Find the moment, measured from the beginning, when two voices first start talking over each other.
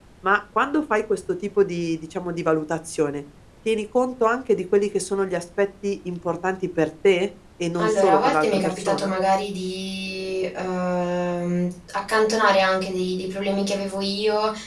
7.8 s

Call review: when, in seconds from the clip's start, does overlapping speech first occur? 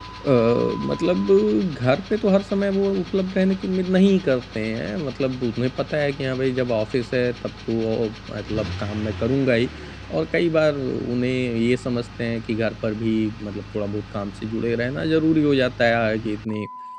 none

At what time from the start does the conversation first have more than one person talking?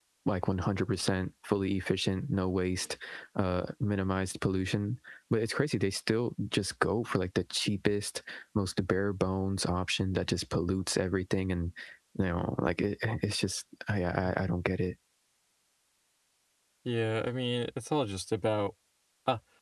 none

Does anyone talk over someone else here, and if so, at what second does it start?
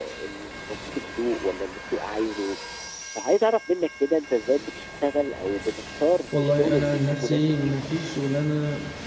6.3 s

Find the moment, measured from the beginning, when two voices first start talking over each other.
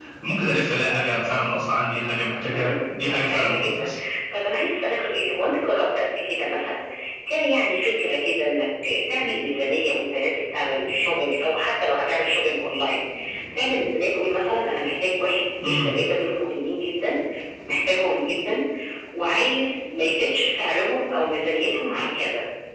2.5 s

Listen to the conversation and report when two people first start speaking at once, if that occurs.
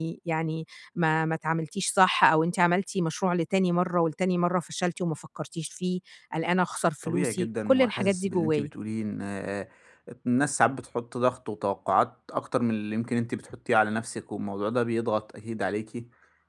7.0 s

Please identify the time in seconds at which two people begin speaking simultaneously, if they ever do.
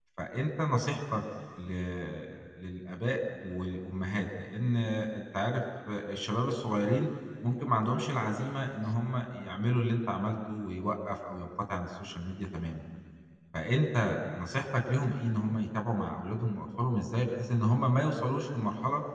none

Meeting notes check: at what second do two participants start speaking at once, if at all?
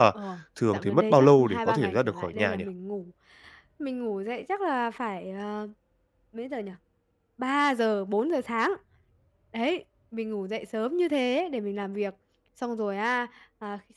0.7 s

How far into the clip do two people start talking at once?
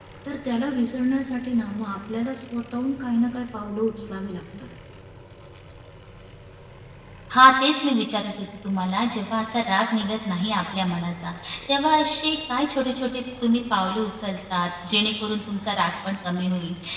none

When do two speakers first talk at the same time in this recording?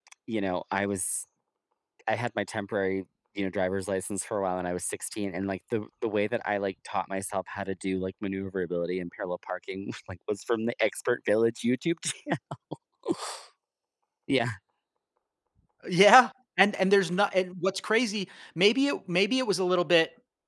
none

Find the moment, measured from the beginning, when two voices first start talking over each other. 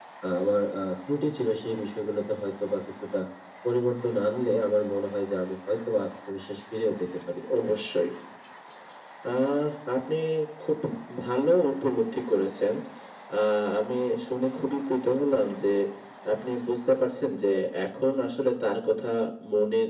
none

